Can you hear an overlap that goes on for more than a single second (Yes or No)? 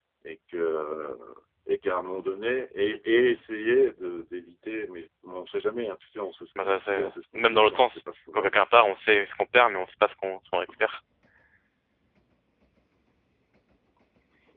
Yes